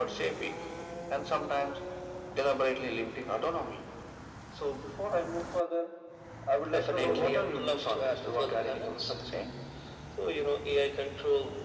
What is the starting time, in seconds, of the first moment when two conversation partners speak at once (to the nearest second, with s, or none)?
7 s